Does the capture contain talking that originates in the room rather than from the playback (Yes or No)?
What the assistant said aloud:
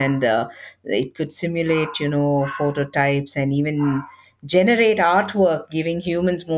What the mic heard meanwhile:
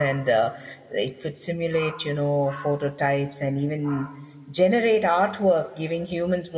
No